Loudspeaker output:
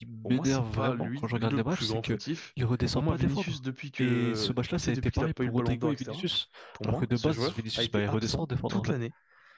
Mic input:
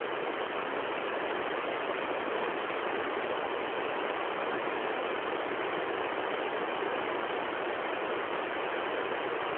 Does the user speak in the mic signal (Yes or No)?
No